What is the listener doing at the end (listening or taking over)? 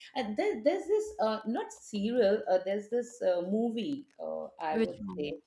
listening